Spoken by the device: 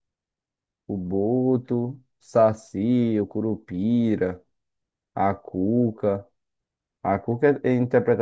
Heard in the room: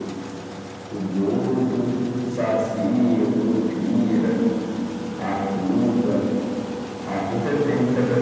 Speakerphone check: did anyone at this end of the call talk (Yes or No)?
No